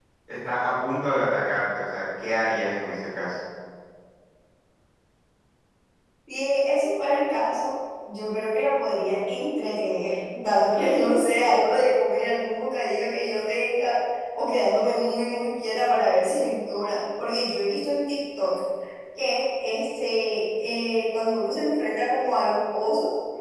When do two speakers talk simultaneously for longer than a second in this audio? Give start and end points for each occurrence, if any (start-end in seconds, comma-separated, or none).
none